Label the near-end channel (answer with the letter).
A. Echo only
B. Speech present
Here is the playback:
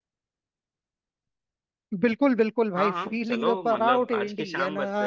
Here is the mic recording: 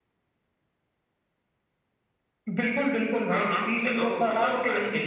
A